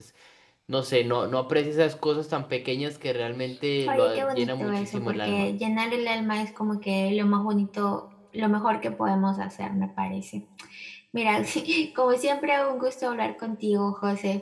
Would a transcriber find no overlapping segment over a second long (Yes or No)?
No